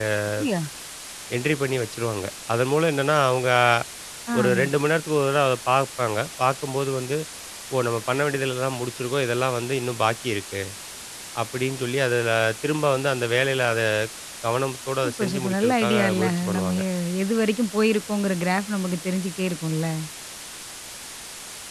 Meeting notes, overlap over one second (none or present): present